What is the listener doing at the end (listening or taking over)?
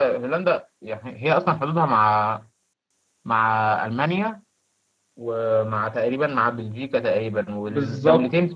listening